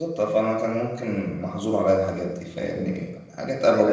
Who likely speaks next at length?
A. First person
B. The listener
B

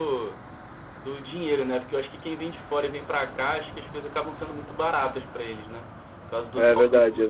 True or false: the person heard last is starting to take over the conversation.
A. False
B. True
B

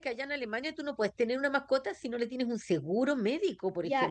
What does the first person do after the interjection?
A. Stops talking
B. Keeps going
A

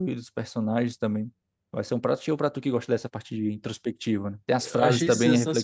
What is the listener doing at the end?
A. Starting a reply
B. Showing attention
A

